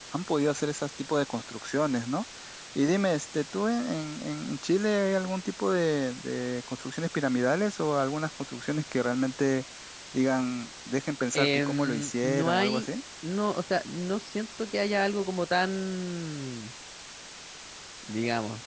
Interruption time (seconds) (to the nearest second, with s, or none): 11 s